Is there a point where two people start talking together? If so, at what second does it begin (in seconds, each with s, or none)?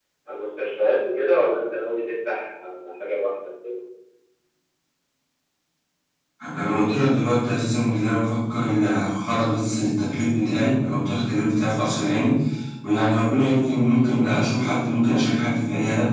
none